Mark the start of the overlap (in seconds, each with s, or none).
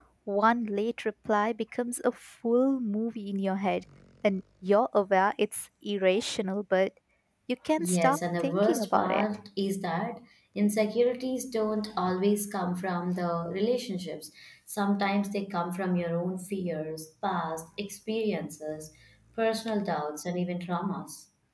7.8 s